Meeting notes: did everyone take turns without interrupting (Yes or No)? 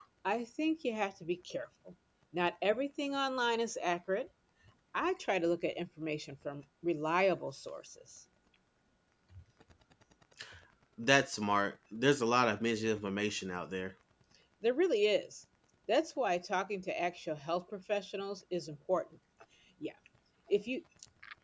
Yes